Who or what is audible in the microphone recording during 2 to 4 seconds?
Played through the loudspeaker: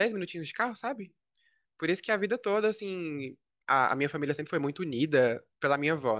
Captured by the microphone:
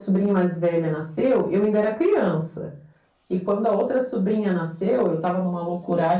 user only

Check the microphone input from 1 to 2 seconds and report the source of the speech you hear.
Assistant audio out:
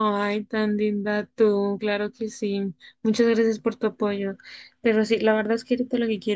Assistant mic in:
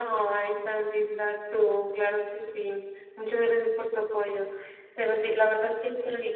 echo only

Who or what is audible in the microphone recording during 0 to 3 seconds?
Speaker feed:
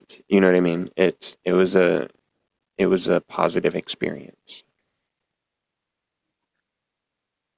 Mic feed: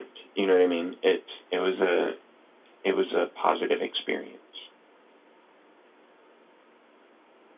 echo only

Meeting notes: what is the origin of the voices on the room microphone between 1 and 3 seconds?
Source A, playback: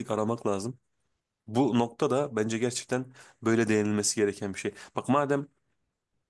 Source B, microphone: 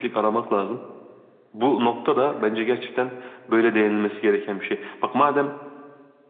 echo only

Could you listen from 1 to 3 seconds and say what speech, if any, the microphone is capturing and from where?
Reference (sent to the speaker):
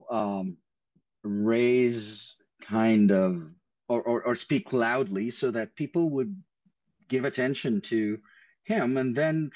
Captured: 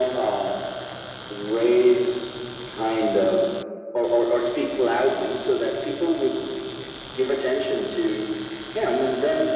echo only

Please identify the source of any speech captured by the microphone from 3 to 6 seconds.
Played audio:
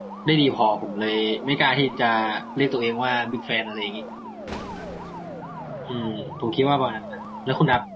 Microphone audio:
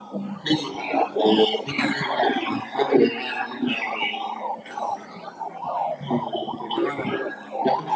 echo only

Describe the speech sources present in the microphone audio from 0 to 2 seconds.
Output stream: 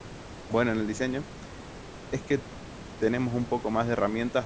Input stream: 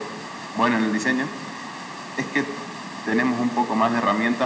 echo only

